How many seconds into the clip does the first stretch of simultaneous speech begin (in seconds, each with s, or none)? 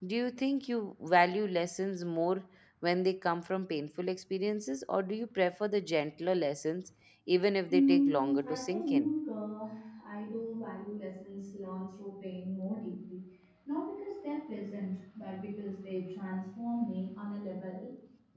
7.7 s